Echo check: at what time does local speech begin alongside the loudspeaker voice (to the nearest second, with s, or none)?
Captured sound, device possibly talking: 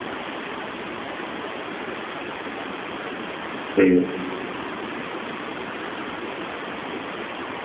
4 s